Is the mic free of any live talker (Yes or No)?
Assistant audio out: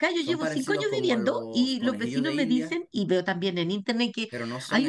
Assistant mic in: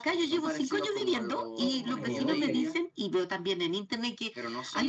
No